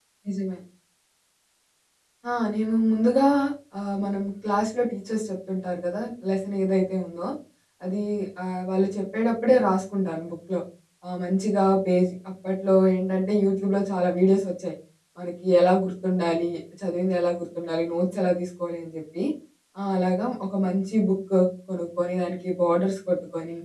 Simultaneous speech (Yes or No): No